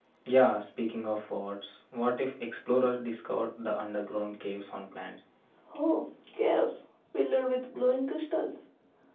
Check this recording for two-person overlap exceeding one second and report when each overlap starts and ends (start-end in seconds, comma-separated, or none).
none